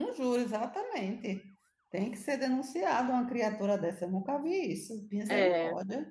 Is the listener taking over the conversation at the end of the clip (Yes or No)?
Yes